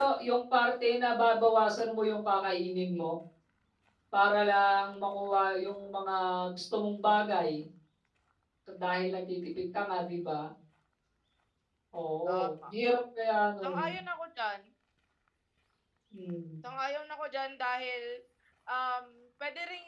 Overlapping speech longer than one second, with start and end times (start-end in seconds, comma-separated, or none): none